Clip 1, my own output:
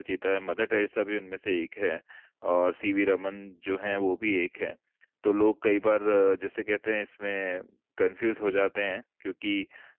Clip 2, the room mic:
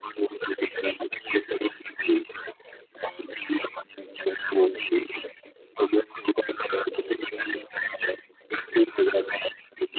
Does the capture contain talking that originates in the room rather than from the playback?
No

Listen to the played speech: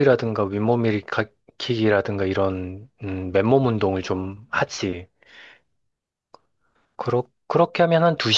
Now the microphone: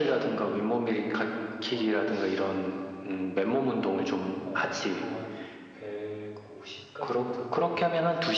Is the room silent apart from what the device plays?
No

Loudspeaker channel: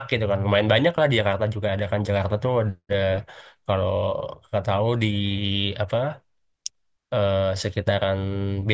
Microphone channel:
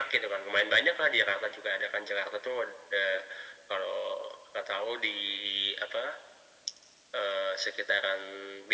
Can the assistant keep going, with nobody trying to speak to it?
Yes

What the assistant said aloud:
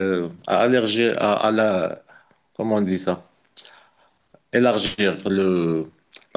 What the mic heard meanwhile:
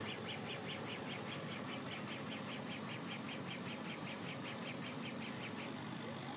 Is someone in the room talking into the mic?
No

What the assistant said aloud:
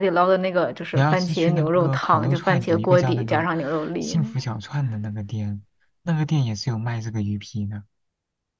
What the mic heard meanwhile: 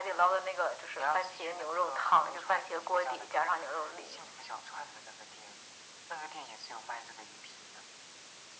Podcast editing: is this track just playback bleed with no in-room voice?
Yes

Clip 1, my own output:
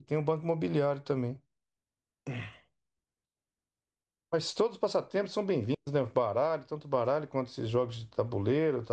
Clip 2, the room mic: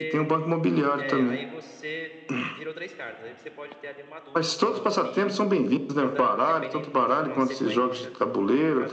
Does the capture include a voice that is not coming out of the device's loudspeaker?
Yes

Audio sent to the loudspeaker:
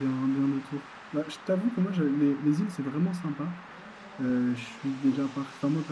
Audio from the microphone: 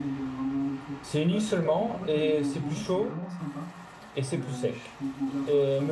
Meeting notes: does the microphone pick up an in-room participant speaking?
Yes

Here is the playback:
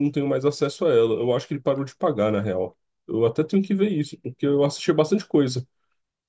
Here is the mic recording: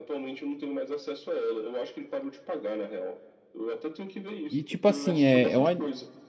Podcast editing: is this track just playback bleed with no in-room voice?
No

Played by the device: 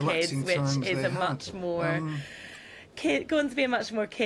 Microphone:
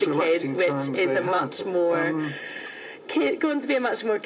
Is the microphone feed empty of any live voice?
Yes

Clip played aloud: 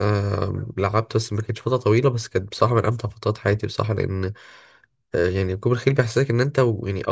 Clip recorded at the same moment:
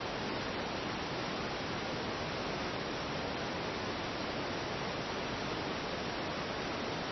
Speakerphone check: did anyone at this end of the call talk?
No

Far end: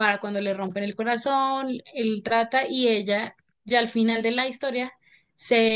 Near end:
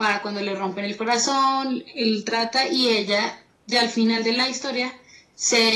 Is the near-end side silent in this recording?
Yes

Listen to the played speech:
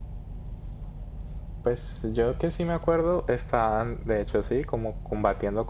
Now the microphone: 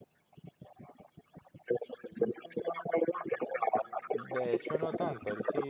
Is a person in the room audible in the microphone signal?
Yes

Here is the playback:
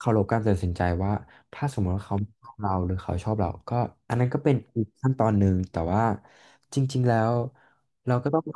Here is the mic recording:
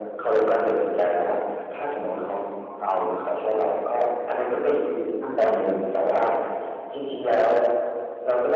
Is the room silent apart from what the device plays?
Yes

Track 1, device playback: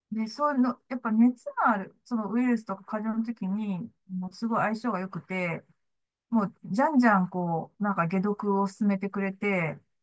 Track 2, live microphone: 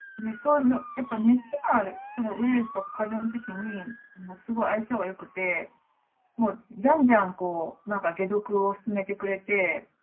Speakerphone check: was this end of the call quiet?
Yes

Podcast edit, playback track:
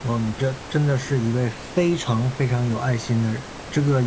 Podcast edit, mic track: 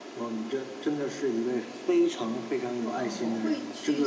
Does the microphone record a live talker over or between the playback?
Yes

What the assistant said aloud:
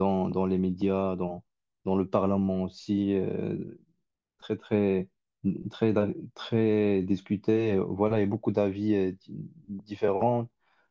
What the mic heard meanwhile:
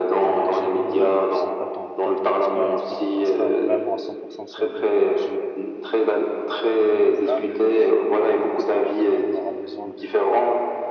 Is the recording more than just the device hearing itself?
Yes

